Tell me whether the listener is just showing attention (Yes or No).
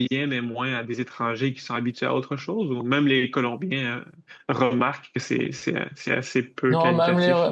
No